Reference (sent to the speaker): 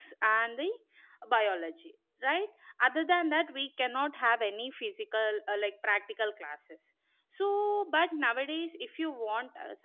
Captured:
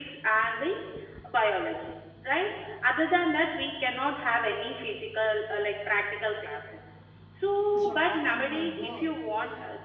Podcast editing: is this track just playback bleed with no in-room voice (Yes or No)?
No